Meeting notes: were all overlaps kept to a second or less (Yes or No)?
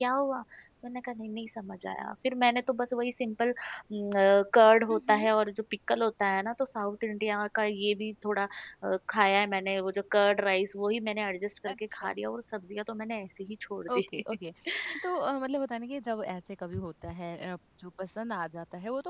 Yes